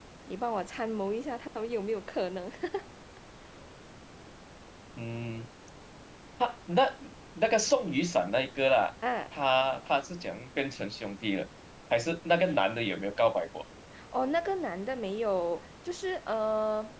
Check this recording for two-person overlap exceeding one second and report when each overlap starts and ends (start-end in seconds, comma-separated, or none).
none